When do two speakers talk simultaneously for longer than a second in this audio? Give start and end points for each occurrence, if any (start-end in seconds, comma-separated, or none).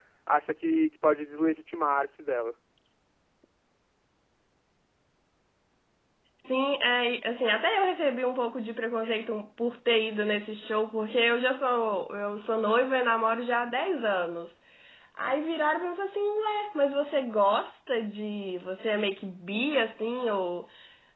none